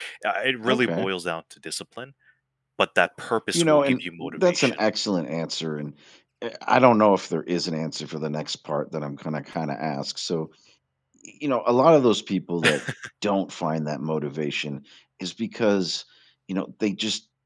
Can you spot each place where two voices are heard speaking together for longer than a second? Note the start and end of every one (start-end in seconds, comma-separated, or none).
3.5-4.8